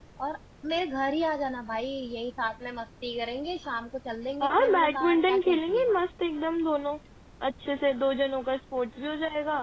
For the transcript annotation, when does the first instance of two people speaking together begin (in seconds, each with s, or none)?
4.4 s